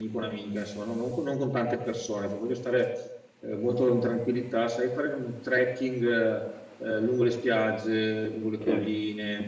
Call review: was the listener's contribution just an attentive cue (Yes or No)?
Yes